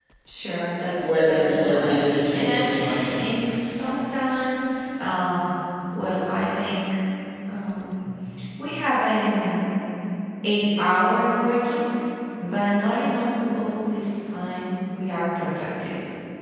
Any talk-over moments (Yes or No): Yes